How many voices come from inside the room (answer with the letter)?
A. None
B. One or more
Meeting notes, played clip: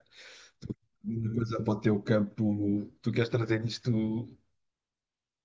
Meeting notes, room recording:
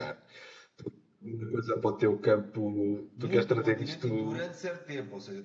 B